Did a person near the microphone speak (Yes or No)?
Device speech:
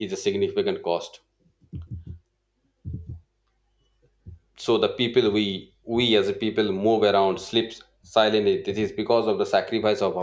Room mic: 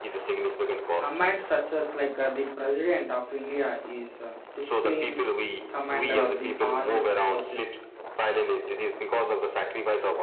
Yes